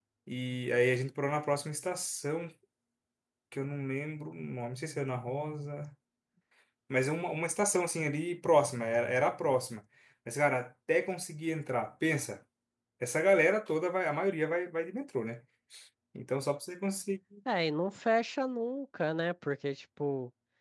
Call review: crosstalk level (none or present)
none